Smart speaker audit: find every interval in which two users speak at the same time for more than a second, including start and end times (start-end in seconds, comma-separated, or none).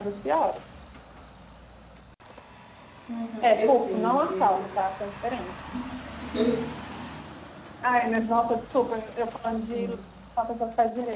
3.4-4.7